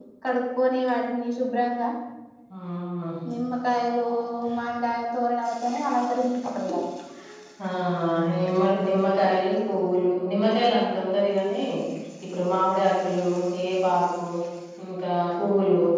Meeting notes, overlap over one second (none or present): none